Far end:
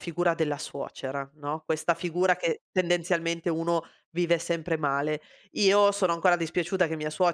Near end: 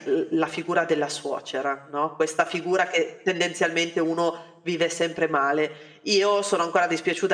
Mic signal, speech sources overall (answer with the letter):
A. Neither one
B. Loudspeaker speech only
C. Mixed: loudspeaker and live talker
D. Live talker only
B